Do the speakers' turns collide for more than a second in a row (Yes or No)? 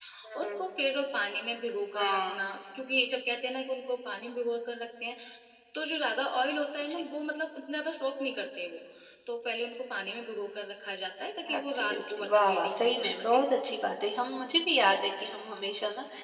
Yes